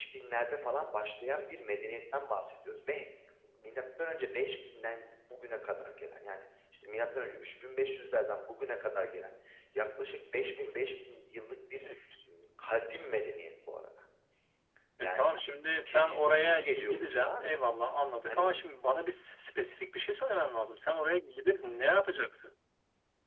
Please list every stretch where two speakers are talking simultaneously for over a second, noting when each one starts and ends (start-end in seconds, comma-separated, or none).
15.9-17.5